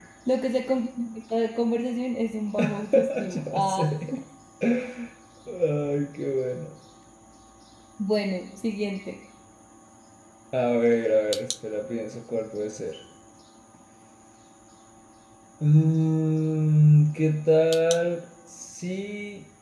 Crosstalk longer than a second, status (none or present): present